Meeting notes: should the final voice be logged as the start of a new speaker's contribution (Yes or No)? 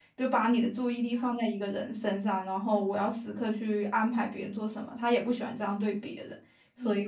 Yes